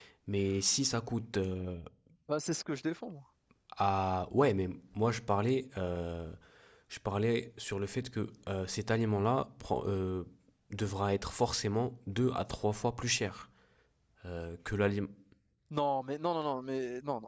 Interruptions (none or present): none